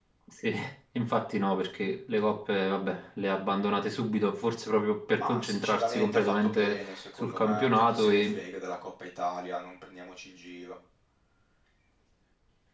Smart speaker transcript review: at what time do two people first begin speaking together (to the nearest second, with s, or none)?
5 s